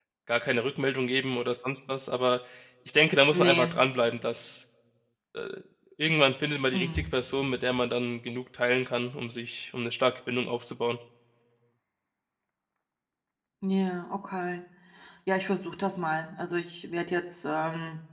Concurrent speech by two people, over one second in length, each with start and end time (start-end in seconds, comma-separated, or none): none